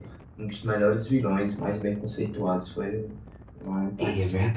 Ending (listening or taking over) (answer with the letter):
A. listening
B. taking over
B